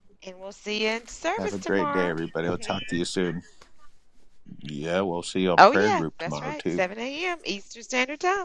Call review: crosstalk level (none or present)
present